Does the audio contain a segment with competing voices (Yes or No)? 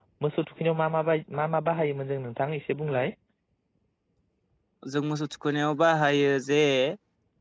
No